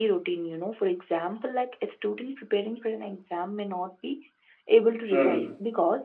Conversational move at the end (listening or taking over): listening